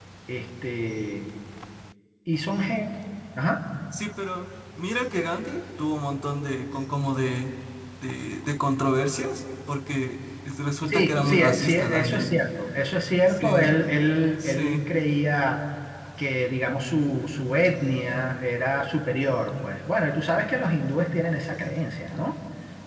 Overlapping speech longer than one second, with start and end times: 10.9-12.3

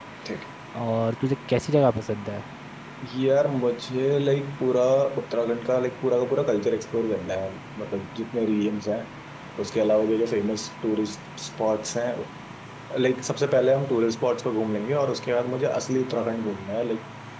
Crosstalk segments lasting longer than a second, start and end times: none

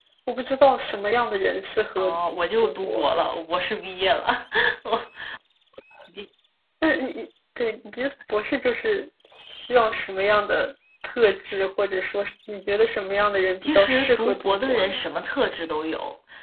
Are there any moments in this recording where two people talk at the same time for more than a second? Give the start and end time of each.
13.7-15.0

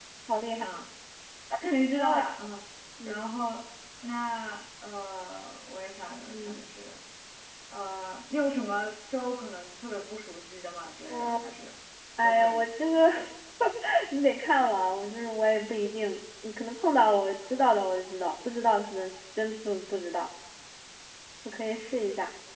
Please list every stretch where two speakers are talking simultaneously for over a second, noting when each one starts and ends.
none

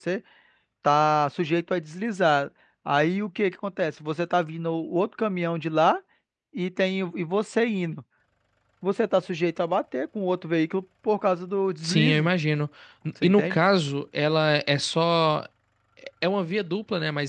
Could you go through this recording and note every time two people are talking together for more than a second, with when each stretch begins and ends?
none

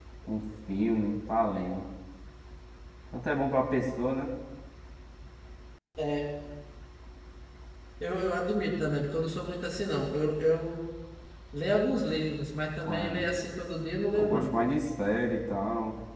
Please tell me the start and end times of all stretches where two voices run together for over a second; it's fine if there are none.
none

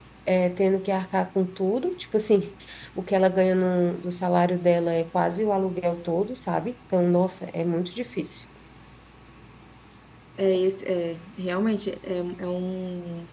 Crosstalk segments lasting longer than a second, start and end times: none

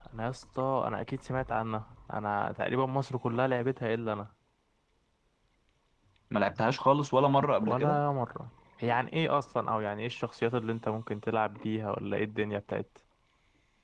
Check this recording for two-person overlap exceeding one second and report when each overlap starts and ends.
none

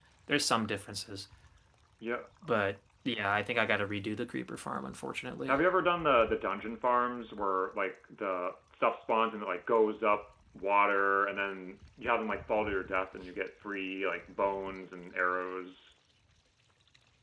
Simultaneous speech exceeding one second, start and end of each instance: none

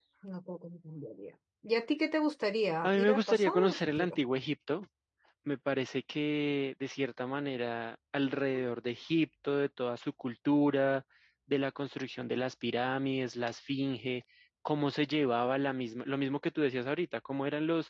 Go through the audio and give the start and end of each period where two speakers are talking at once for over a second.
2.8-4.2

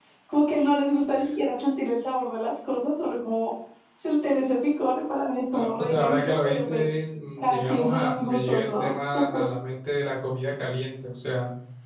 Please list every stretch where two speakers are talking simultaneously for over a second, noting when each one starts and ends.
5.5-6.9, 7.4-8.9

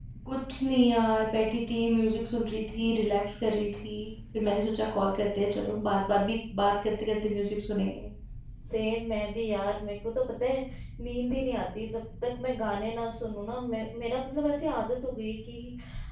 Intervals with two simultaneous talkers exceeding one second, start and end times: none

